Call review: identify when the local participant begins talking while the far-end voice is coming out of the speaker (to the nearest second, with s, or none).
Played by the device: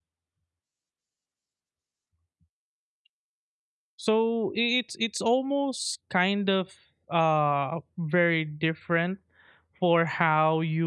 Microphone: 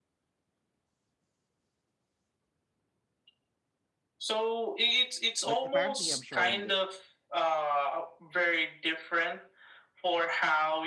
5 s